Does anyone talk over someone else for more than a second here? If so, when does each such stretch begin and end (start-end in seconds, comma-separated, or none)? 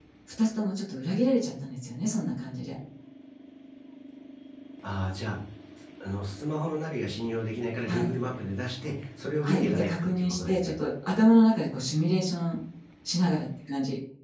9.4-10.8